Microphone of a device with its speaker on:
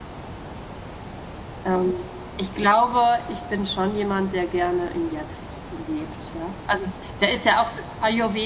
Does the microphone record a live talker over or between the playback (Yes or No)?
Yes